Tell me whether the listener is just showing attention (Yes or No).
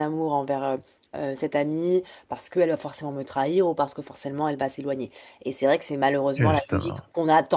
Yes